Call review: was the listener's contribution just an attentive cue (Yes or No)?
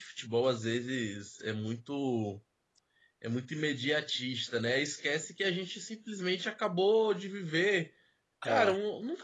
Yes